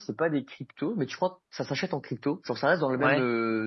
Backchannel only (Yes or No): Yes